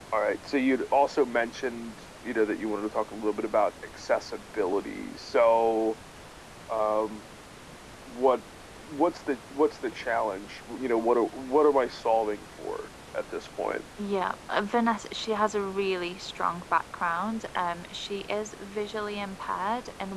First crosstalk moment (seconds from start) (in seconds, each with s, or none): none